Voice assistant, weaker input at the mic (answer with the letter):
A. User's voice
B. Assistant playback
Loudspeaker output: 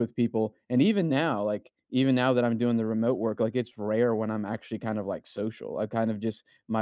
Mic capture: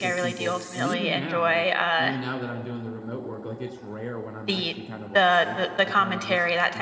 B